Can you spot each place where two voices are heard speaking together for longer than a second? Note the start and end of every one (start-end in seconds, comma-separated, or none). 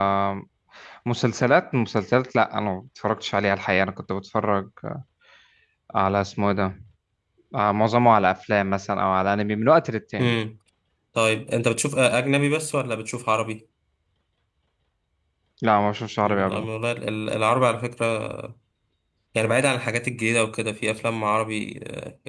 none